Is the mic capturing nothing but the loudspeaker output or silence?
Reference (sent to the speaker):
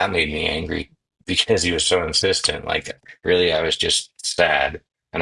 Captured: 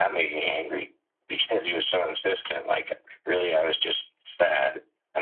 Yes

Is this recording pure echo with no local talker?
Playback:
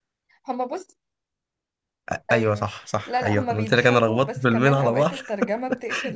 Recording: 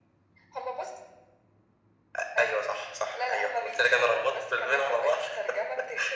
Yes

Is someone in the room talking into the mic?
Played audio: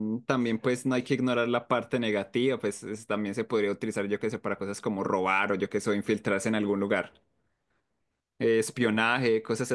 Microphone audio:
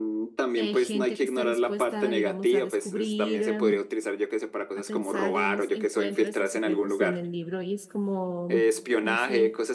Yes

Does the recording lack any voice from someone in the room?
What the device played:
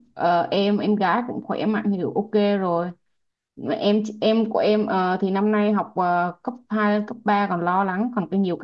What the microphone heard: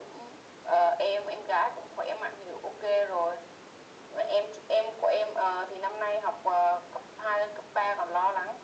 Yes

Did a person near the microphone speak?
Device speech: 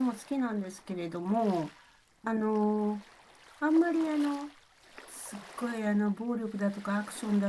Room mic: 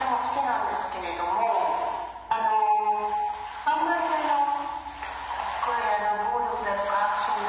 No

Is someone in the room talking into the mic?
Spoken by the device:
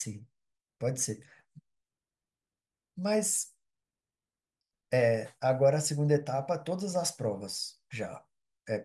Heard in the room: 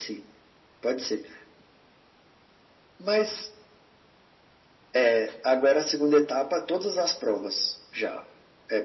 No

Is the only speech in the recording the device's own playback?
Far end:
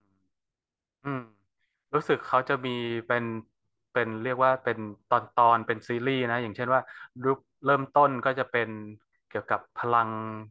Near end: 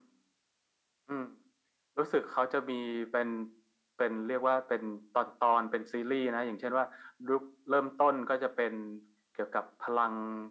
Yes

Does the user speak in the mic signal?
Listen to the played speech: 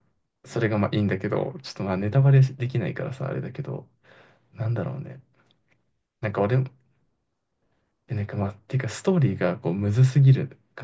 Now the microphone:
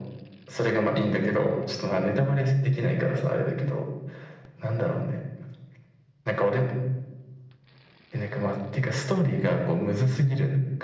No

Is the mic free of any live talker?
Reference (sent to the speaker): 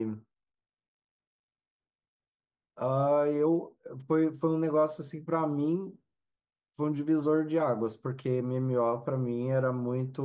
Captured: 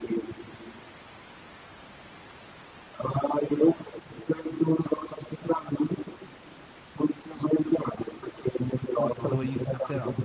No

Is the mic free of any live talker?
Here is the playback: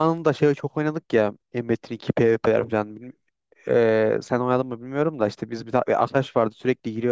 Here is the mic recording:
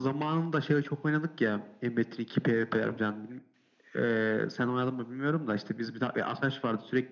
Yes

